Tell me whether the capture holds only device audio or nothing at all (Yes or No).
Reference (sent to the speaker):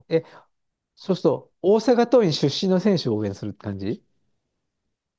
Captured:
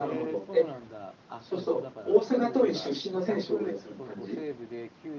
No